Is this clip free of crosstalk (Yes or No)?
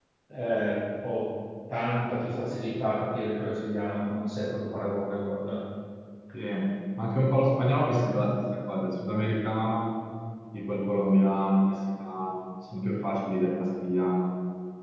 Yes